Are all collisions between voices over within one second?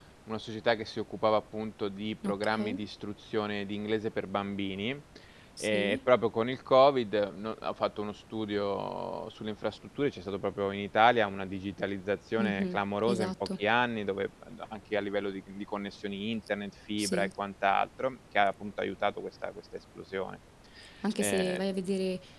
Yes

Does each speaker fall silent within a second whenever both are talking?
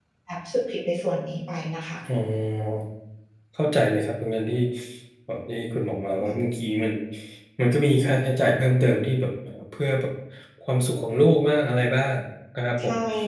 Yes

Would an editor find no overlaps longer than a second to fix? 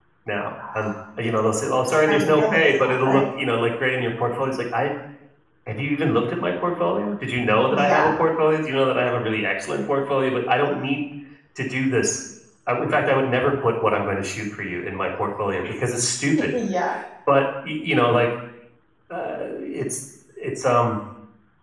No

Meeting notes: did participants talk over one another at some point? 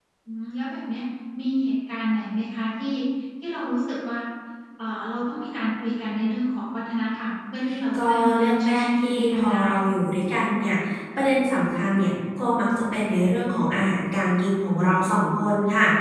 Yes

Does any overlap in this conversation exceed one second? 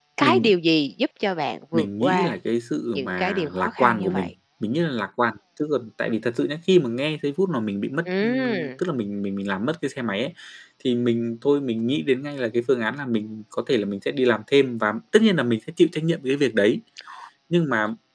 Yes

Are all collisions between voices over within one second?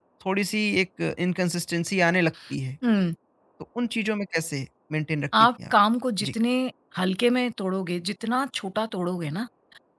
Yes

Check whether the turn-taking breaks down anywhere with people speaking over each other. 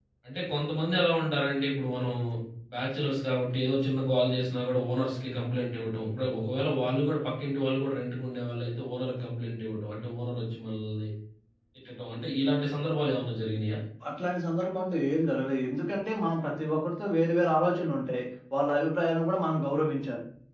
No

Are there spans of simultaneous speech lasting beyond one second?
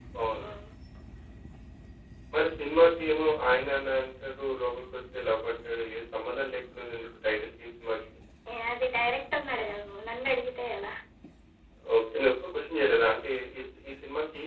No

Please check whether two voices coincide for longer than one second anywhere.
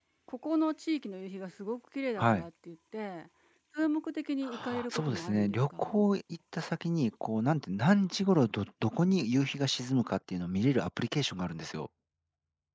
Yes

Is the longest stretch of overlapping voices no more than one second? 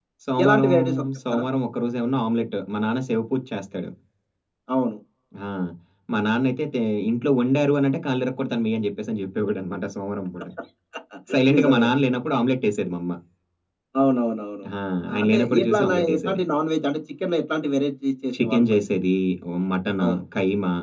No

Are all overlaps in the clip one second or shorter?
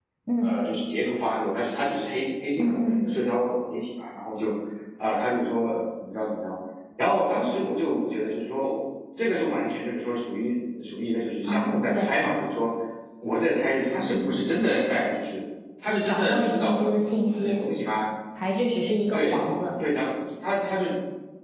No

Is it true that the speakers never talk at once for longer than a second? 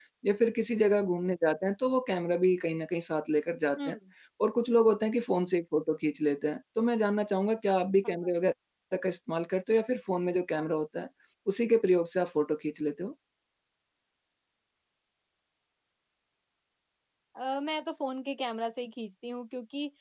Yes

